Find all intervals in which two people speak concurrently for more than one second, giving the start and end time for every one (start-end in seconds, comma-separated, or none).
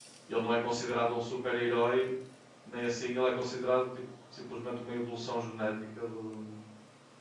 none